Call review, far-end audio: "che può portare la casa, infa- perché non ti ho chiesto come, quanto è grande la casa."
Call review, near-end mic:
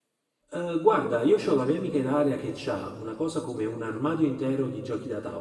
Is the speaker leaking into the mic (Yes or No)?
No